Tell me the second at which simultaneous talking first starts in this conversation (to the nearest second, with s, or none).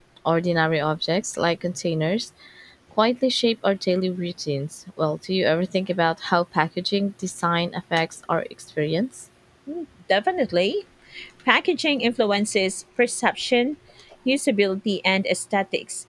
none